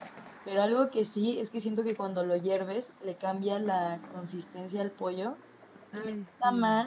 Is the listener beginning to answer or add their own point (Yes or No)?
No